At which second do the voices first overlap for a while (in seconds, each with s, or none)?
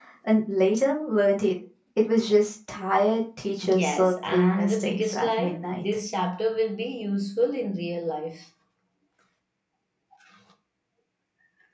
3.6 s